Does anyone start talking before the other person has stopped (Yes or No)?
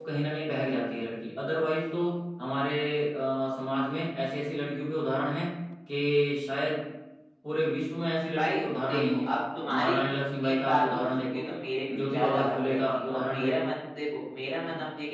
Yes